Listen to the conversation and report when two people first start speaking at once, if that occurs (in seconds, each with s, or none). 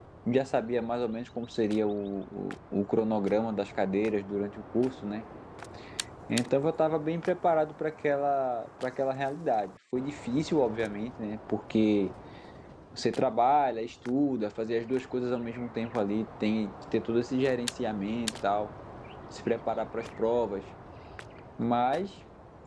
none